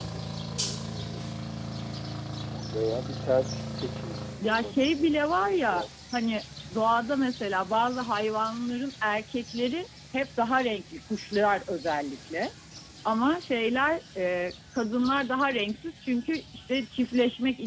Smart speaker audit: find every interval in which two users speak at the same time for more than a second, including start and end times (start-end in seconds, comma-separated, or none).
4.4-5.9